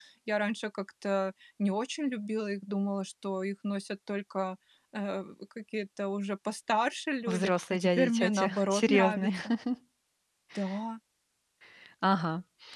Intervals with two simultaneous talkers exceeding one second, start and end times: 7.3-9.3

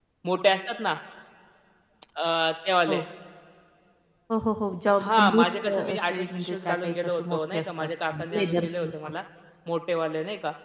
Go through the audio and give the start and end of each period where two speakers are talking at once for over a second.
5.0-9.1

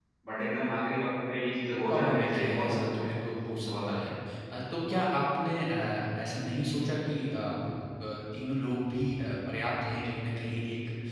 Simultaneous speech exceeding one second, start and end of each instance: 1.9-3.1

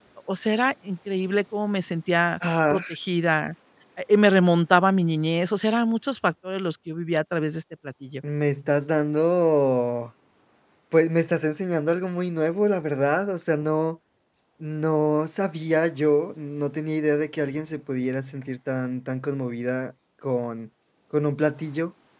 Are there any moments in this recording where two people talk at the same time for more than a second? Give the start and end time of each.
none

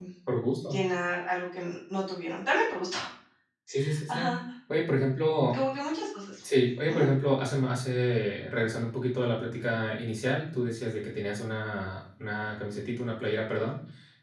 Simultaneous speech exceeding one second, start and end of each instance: none

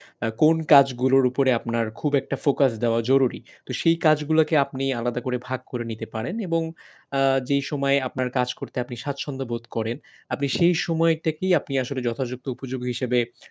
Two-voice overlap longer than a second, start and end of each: none

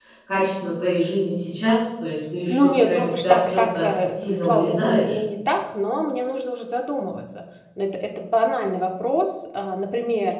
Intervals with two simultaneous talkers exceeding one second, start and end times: 2.5-5.2

